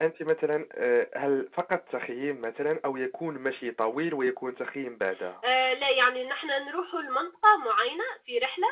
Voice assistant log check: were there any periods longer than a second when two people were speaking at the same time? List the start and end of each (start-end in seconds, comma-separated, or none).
none